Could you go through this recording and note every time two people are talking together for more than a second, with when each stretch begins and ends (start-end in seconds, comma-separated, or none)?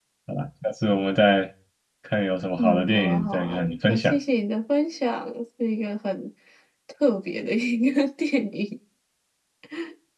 2.6-4.2